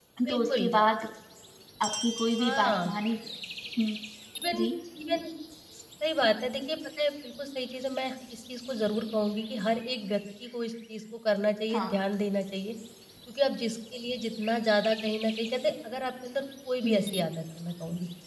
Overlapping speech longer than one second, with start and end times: none

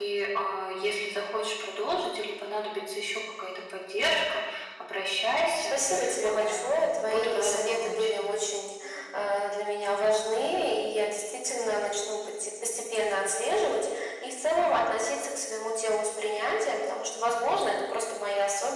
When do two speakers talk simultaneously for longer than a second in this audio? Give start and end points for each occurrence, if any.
6.2-8.1

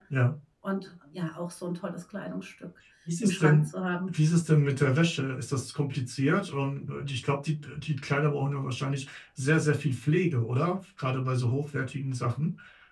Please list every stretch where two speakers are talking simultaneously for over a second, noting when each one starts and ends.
none

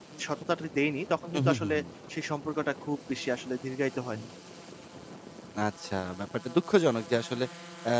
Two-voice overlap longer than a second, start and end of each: none

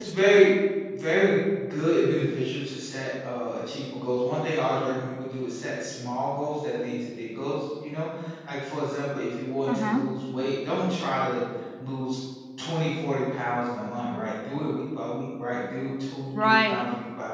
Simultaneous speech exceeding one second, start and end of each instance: none

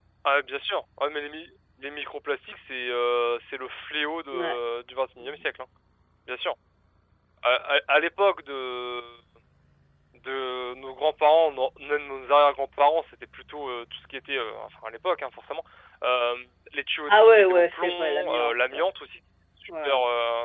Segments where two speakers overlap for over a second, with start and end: 17.1-18.8

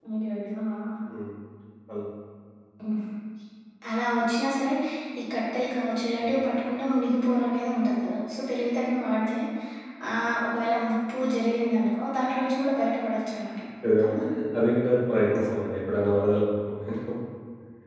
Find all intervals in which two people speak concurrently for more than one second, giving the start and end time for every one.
none

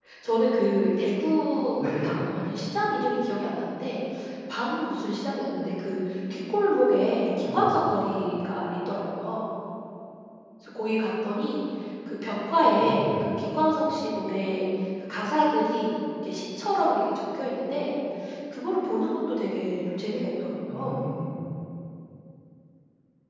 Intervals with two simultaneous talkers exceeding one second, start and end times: none

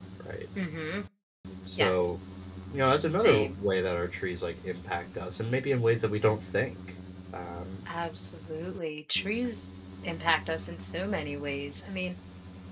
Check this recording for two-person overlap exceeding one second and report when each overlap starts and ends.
none

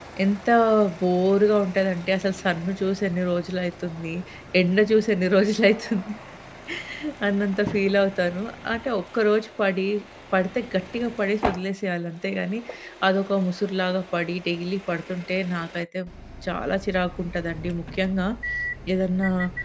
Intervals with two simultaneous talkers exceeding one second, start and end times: none

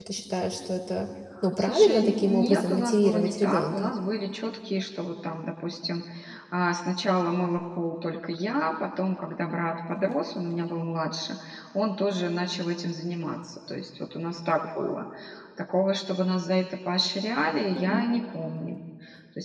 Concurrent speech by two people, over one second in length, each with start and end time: 1.6-3.9

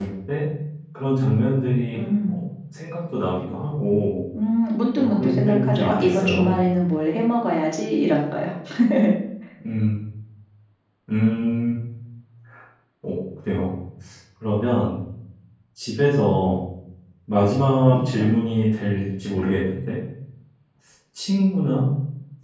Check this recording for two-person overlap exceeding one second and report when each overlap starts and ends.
5.0-6.5

